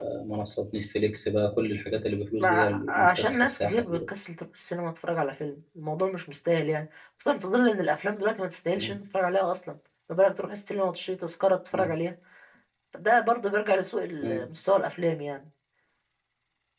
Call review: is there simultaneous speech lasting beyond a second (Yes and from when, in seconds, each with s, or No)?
Yes, from 2.4 s